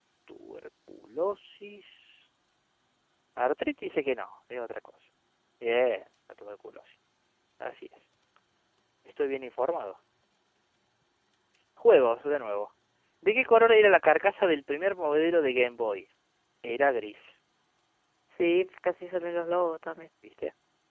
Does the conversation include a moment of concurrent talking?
No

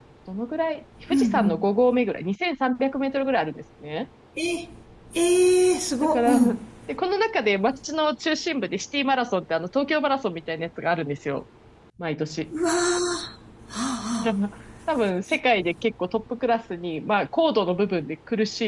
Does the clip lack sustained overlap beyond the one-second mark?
Yes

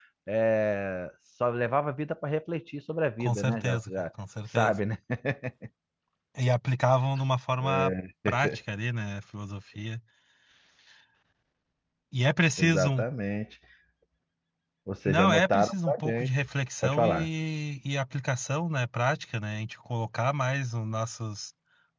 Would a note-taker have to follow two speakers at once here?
Yes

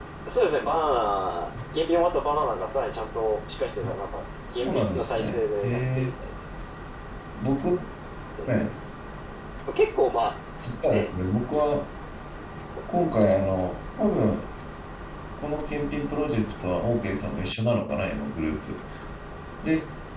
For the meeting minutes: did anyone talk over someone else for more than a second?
Yes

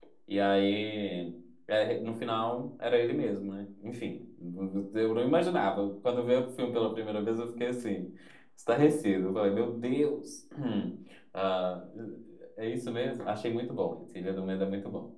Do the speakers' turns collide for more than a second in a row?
No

